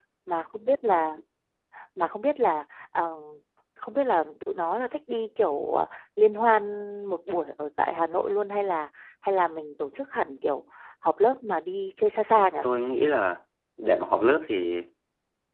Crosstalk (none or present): none